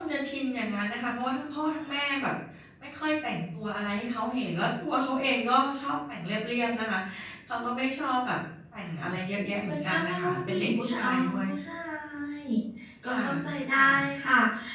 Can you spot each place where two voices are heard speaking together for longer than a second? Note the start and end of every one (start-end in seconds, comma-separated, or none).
9.7-11.4